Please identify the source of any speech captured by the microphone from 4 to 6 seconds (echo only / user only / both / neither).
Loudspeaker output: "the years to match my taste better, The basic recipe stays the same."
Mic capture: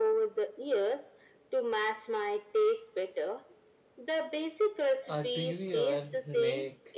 both